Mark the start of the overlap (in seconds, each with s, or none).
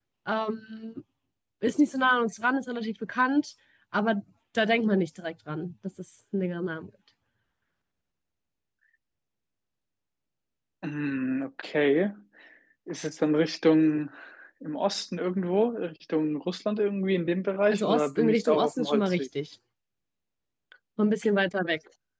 17.7 s